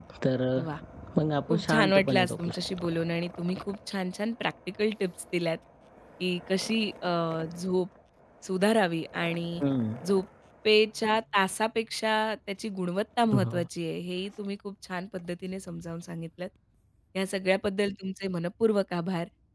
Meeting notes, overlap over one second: present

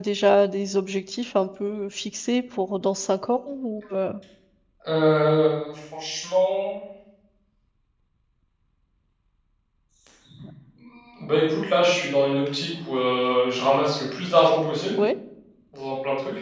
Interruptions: none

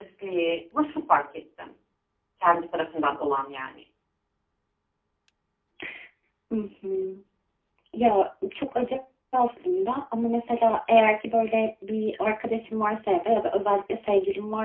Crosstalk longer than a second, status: none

